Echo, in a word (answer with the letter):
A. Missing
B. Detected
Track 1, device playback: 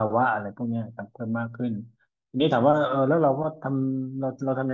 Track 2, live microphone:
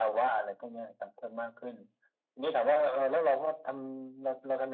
B